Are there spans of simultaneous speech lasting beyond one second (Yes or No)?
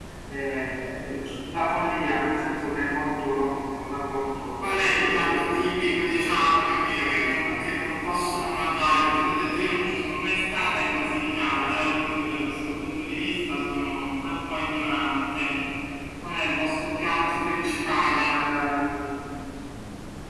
Yes